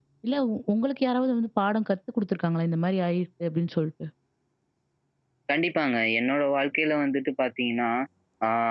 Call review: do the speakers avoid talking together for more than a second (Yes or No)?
Yes